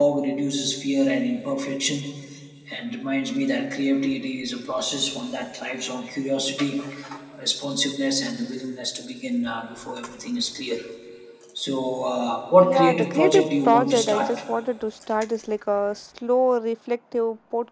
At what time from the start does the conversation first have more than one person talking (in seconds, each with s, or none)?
12.5 s